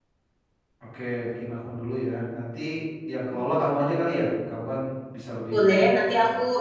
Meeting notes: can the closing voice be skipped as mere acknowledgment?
No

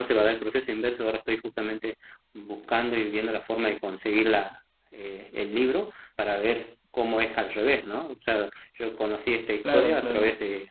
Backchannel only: Yes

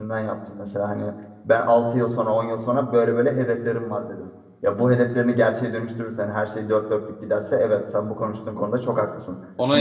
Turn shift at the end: Yes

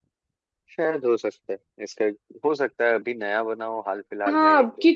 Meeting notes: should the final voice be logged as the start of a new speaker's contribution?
Yes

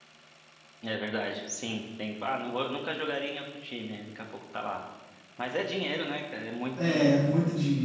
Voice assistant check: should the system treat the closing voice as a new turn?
Yes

